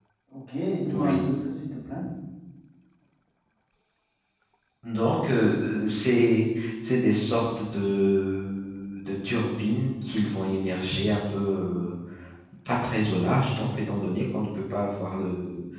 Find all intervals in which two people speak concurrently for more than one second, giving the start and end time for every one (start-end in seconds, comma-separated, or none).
none